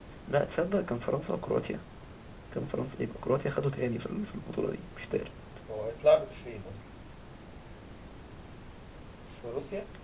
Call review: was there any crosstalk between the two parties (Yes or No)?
No